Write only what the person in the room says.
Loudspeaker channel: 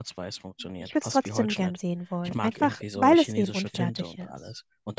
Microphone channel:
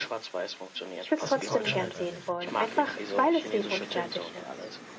Lass uns doch darüber reden.

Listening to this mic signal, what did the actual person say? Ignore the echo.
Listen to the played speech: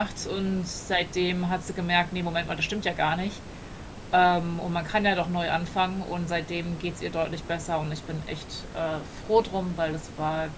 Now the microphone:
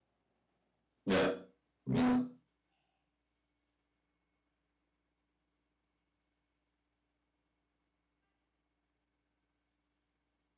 ja, ja.

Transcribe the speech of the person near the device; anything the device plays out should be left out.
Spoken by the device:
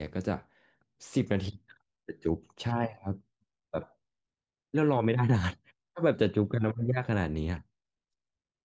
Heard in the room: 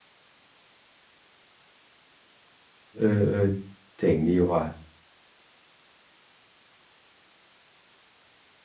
เออเออเจ๋งดีว่ะ

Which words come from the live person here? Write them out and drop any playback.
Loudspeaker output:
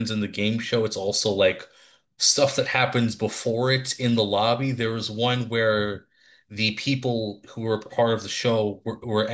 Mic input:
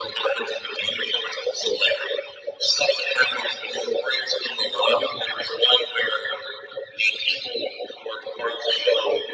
none

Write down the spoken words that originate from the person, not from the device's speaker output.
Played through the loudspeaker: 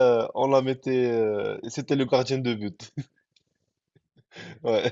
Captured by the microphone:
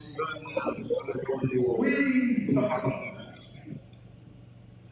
Oui, ça, ça,

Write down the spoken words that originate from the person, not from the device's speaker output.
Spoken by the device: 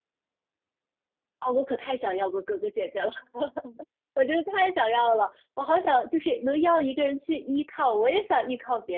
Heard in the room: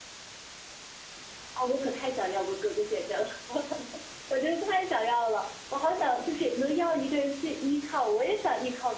none

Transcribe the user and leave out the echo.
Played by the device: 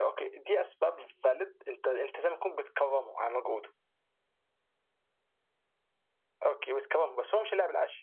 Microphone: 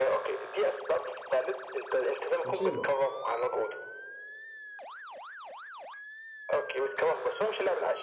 كان شايل لوحده

